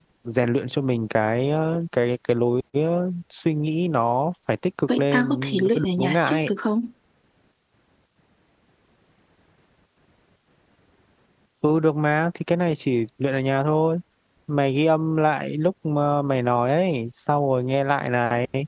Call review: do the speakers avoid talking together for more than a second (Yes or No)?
No